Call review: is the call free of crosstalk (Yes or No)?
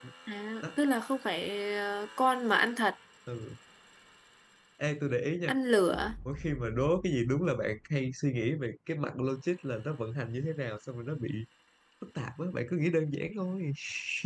Yes